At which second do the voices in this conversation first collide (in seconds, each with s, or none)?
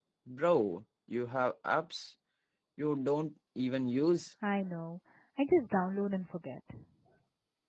none